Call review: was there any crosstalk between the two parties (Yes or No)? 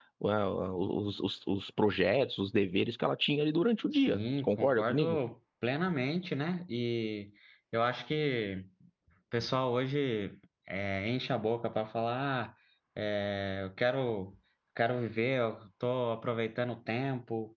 Yes